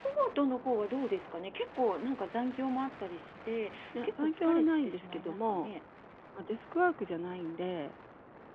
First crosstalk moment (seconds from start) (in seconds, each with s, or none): 3.9 s